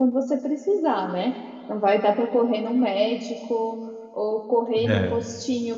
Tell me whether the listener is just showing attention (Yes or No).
Yes